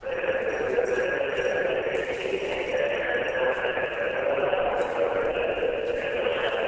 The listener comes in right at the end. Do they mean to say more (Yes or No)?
Yes